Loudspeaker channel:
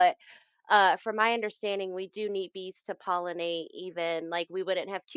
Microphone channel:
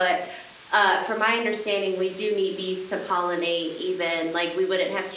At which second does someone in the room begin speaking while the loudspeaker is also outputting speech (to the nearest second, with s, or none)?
none